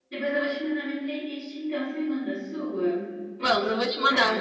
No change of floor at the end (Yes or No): No